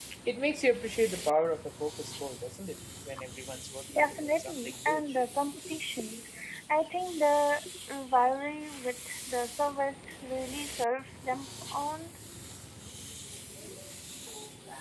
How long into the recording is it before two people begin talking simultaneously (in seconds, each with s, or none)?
3.9 s